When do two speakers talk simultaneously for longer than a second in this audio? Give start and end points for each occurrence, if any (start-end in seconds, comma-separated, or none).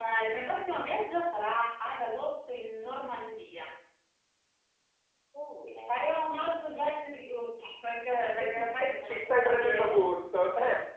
8.6-10.0